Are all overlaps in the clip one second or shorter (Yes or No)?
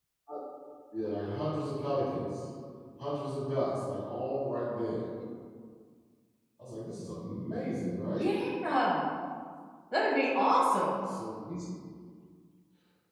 Yes